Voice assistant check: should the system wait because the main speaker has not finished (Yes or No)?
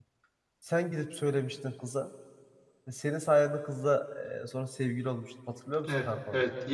No